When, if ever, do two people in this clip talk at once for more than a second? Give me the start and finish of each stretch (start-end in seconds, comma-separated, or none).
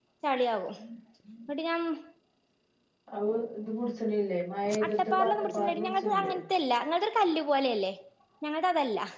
4.9-6.3